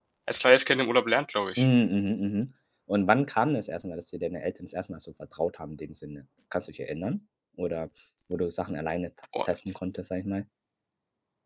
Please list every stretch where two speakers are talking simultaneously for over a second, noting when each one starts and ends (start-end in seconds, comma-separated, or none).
none